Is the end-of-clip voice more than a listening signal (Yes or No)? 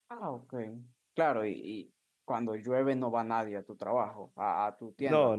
Yes